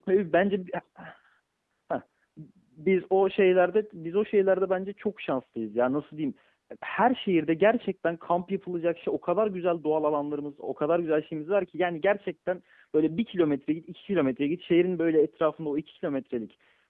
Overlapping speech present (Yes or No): No